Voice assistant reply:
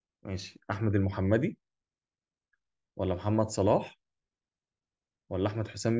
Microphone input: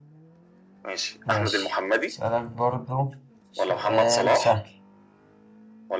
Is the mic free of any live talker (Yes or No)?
No